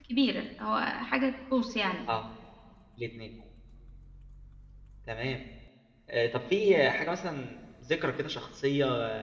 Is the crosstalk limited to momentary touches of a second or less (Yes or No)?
Yes